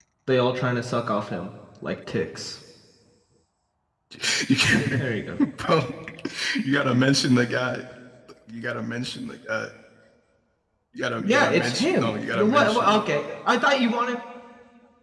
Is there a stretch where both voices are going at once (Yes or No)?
Yes